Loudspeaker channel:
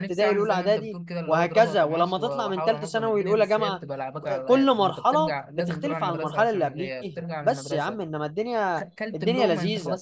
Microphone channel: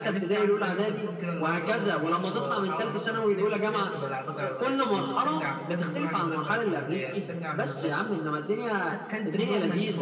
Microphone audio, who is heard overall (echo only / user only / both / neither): echo only